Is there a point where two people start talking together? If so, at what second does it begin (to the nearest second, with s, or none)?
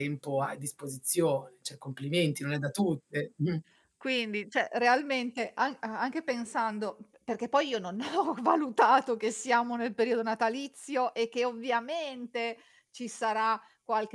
none